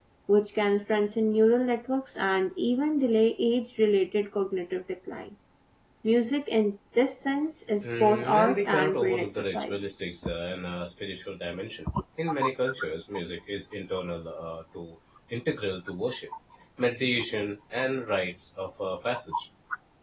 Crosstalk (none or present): present